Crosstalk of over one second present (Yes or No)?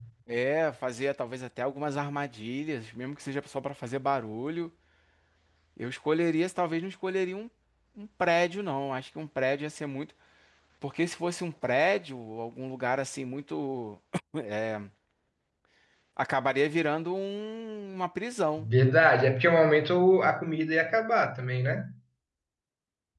No